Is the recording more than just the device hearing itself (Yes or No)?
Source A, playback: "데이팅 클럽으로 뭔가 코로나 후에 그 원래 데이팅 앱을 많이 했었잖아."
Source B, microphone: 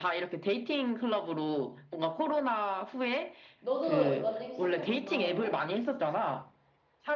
Yes